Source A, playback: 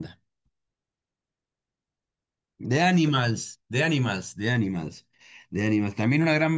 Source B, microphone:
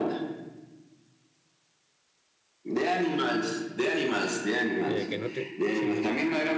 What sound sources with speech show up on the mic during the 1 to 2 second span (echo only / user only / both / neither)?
neither